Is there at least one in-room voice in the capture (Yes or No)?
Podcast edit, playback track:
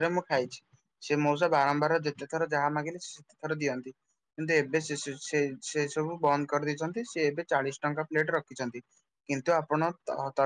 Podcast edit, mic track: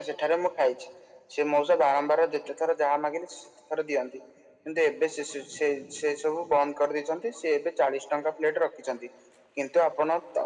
No